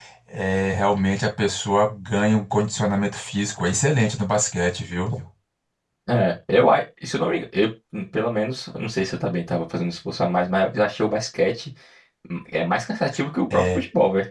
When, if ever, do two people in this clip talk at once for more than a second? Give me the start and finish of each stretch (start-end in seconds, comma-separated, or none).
none